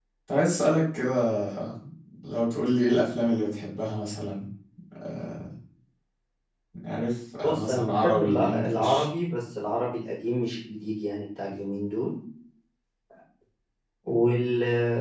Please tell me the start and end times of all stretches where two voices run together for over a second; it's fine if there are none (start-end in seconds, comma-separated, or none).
7.4-9.1